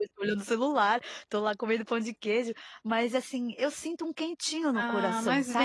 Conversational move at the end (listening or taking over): taking over